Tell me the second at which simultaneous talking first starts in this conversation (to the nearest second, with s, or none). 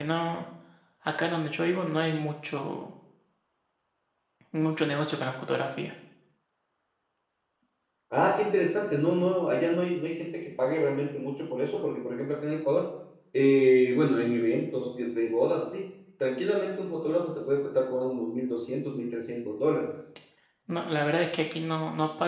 none